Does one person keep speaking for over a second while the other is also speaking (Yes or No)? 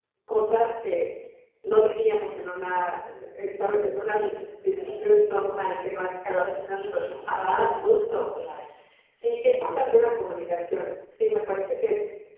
Yes